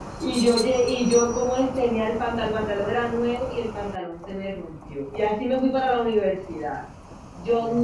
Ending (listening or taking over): listening